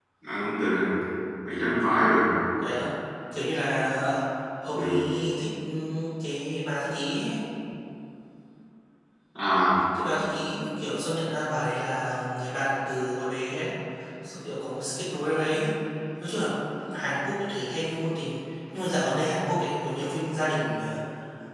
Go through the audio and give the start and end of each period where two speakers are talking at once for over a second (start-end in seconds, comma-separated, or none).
none